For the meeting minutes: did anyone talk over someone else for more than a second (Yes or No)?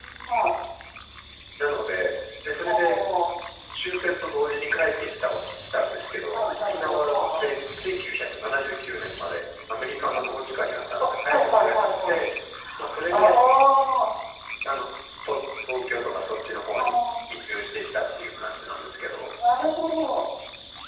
Yes